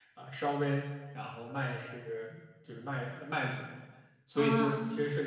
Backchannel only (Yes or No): Yes